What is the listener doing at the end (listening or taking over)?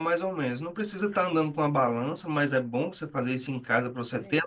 listening